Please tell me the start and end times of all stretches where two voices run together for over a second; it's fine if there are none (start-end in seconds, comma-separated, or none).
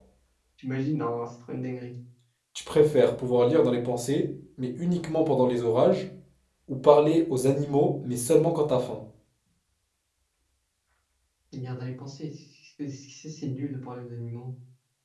none